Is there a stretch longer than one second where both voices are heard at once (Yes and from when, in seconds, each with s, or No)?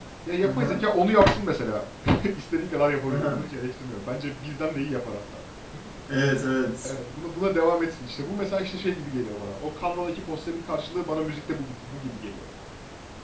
No